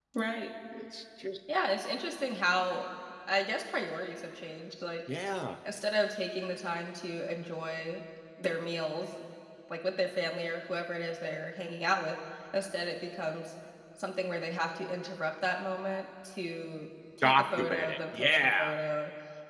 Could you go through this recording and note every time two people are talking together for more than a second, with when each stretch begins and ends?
17.2-18.5

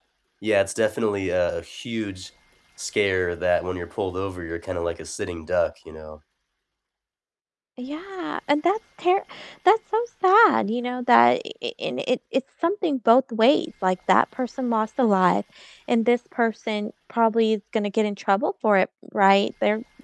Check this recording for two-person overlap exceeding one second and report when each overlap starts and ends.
none

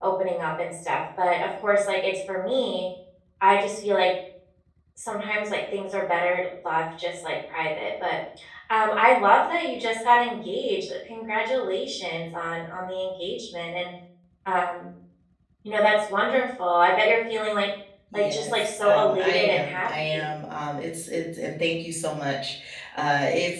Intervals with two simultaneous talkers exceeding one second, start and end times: 18.1-20.3

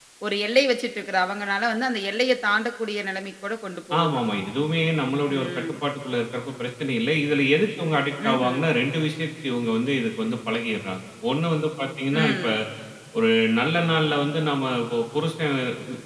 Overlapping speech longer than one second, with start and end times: none

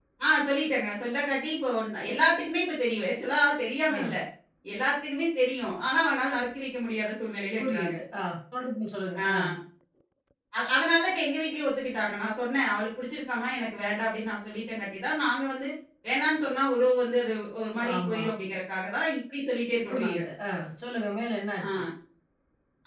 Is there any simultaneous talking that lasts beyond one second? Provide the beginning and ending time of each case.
none

